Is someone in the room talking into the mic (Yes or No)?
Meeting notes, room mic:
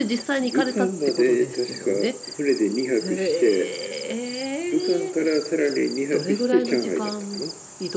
Yes